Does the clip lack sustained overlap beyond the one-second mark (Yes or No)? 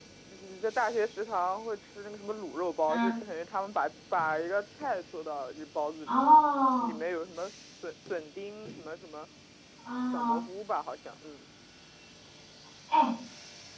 Yes